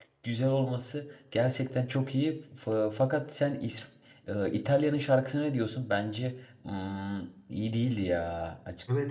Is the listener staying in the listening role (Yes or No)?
No